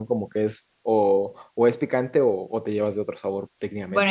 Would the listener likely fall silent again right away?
No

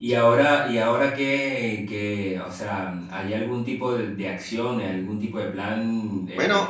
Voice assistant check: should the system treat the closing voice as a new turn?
No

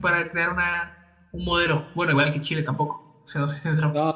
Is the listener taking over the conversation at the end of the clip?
Yes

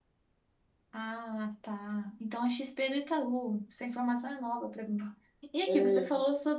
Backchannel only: Yes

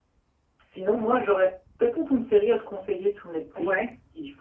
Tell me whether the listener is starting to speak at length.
No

